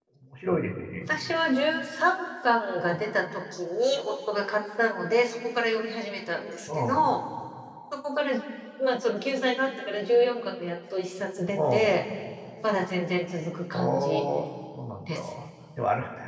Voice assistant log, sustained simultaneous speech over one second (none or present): none